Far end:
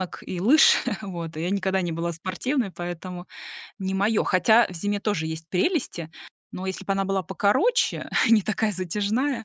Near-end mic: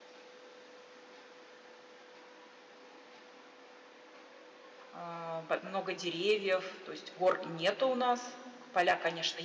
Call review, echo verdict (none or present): none